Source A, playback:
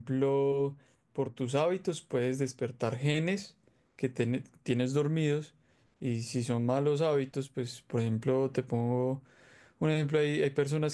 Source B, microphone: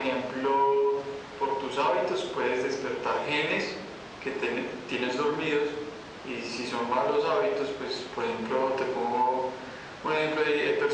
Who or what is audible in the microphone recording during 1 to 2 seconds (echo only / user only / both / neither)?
echo only